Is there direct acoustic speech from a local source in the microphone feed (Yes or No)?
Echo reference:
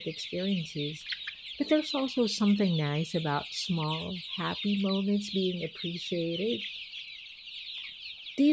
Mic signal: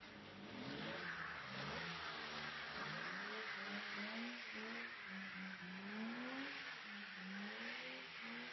No